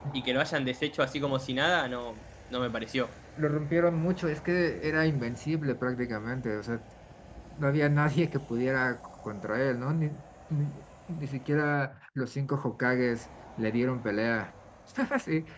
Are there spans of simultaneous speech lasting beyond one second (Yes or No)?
No